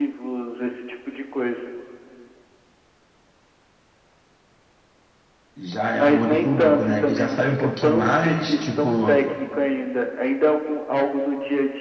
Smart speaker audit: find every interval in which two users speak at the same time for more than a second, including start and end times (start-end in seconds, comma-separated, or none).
5.9-9.2